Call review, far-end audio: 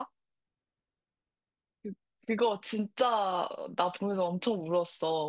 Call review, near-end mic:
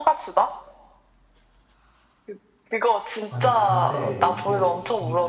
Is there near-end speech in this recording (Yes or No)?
Yes